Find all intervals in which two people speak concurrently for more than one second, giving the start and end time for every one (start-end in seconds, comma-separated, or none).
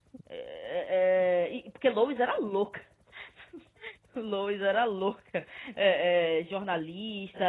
none